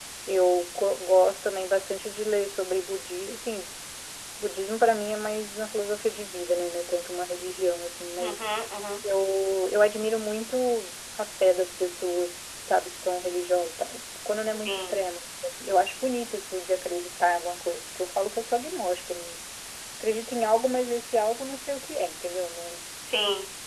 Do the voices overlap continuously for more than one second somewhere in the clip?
No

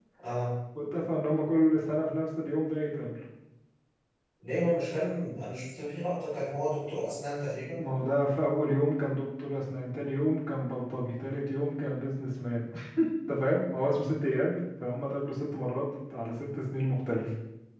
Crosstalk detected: No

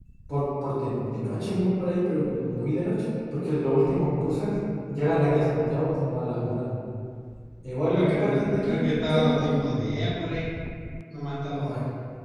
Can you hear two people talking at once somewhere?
Yes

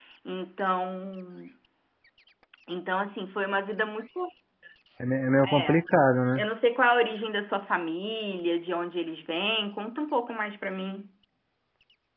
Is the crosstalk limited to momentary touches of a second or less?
Yes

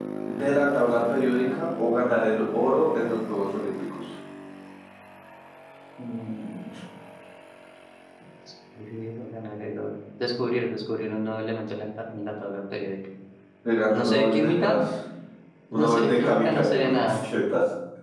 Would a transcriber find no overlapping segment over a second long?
No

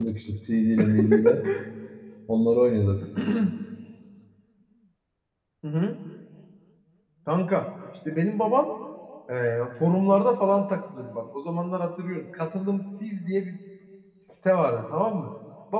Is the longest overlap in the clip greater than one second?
No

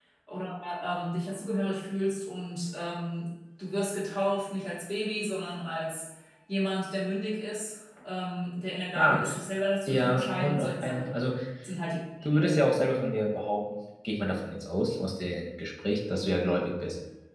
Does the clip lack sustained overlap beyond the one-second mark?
No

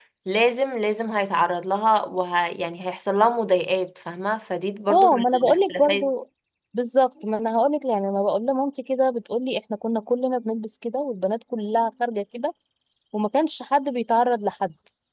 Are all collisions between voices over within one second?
No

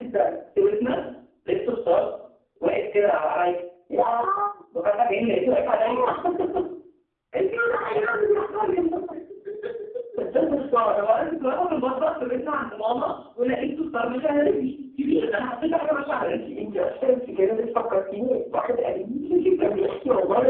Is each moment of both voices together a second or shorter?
Yes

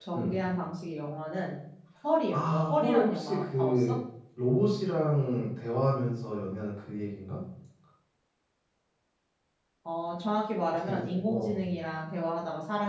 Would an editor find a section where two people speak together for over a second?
Yes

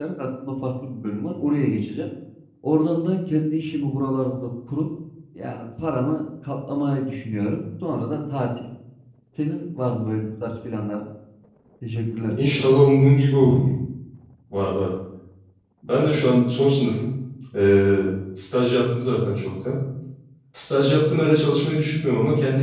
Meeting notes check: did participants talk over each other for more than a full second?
No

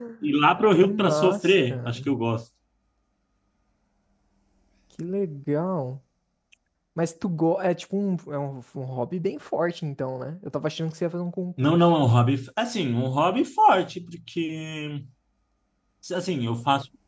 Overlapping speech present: Yes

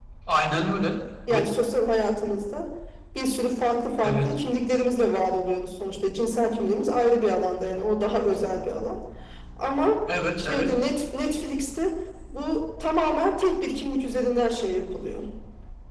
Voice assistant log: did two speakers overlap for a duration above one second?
No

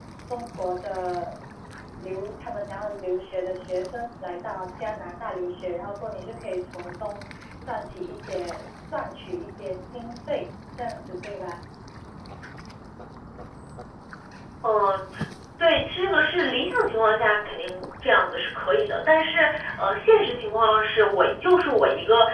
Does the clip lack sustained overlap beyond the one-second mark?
Yes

